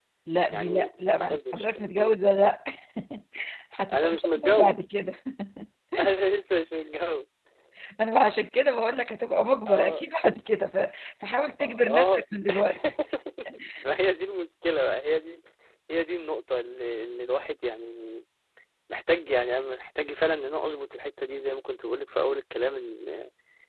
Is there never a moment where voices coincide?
No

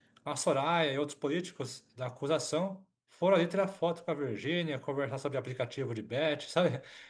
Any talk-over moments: No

